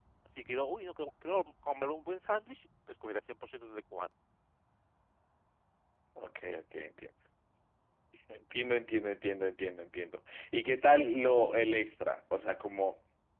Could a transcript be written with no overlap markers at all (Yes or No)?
Yes